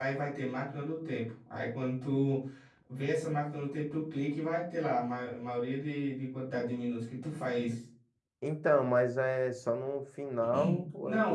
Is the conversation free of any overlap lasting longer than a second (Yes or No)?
Yes